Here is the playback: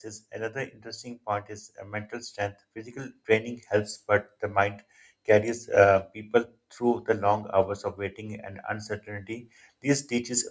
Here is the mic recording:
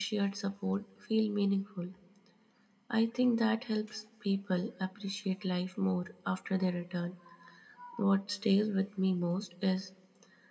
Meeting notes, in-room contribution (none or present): present